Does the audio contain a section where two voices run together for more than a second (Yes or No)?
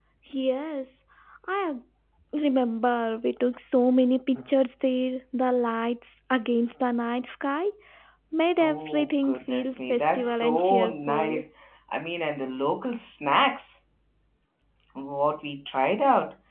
Yes